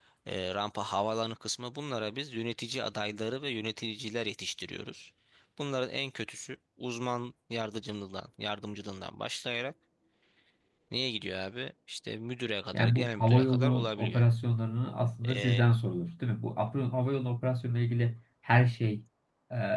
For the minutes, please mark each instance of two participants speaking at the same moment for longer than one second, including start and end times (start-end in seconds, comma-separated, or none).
12.7-14.2